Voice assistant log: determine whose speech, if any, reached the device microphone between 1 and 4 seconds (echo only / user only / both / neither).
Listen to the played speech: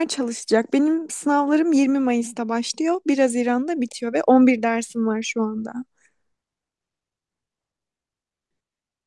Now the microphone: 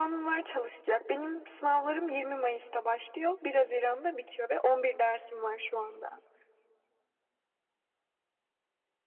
echo only